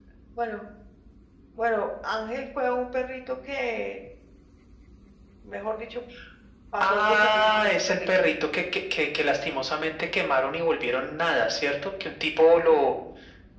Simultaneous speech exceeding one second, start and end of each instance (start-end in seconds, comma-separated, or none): 6.8-8.1